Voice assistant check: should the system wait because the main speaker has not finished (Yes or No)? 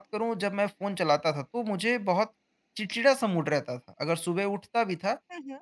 Yes